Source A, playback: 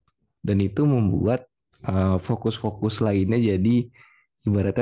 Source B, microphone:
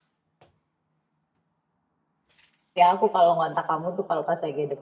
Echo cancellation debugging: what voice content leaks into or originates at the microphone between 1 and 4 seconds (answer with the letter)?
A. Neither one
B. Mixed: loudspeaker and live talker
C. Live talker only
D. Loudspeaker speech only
C